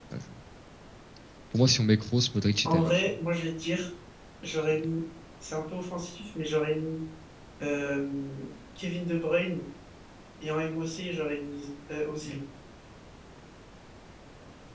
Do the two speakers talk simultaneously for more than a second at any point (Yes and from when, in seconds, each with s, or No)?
No